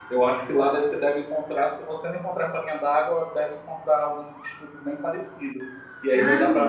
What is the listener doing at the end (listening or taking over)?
listening